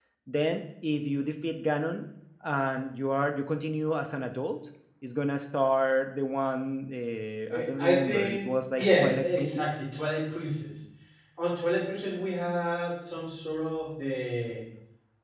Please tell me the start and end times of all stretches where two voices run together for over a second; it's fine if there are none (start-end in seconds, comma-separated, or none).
7.5-9.7